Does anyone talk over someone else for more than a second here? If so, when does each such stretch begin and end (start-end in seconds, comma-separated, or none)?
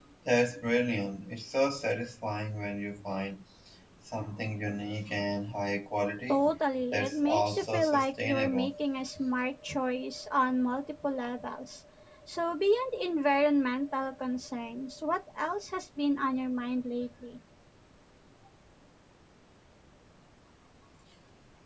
6.9-8.7